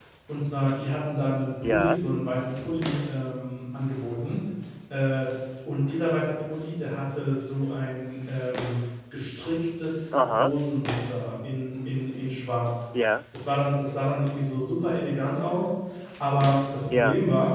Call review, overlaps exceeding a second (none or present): none